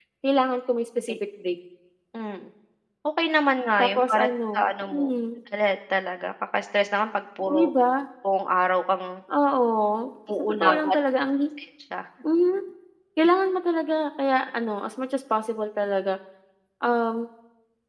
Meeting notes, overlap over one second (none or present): present